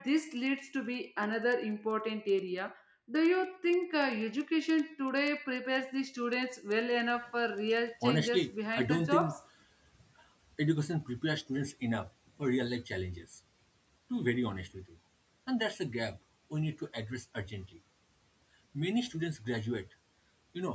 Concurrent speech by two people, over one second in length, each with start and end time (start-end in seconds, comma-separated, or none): 8.0-9.3